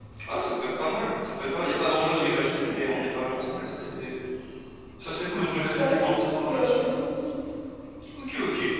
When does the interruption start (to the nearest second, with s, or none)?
6 s